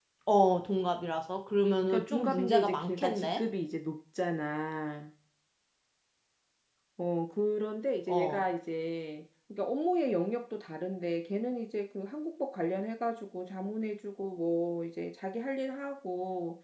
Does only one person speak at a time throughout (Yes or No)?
No